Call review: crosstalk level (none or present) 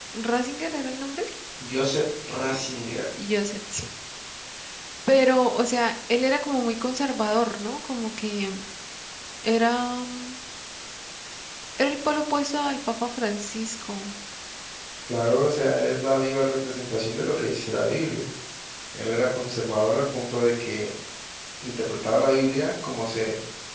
none